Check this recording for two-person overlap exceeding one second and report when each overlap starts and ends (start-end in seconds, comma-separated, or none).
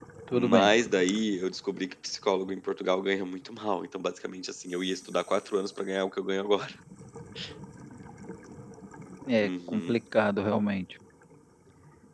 none